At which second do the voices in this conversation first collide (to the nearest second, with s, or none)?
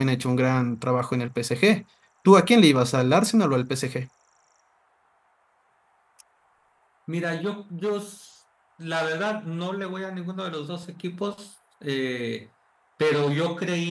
none